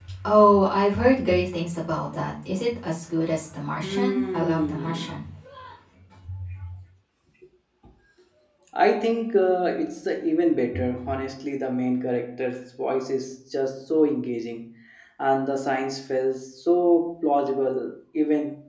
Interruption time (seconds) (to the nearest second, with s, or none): 4 s